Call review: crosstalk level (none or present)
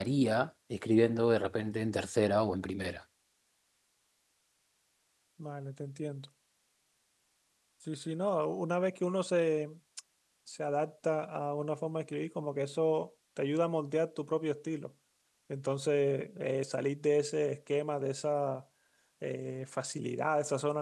none